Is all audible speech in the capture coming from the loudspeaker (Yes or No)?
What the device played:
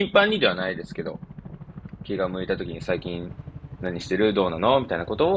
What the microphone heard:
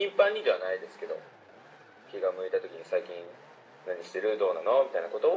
Yes